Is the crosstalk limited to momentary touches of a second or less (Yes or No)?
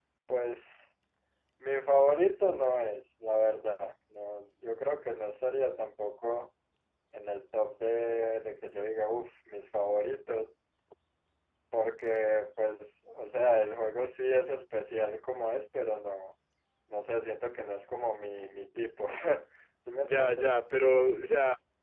Yes